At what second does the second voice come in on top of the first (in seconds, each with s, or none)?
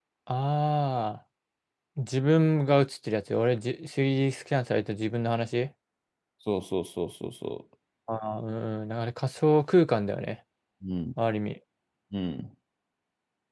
none